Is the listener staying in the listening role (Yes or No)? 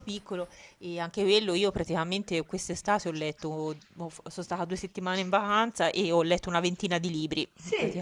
No